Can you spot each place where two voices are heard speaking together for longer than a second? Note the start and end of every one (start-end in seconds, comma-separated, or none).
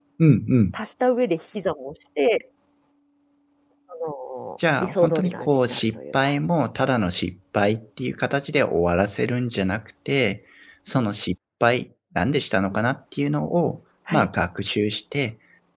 4.8-6.2